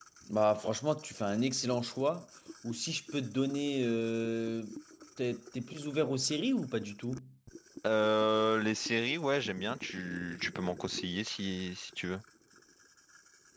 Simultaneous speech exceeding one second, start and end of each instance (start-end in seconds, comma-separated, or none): none